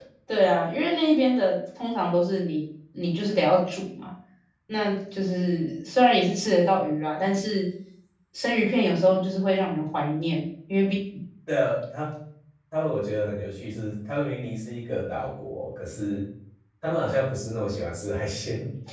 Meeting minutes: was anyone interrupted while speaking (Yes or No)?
No